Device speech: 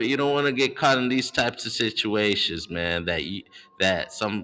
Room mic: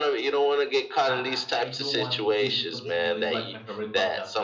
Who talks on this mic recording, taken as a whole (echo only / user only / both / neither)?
both